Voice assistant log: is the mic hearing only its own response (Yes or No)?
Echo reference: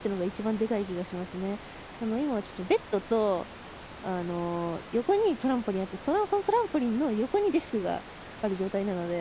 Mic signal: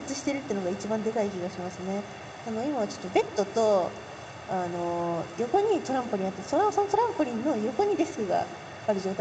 Yes